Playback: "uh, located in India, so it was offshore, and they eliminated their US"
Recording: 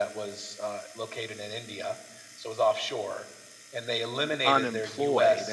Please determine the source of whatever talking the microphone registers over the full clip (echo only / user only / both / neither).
both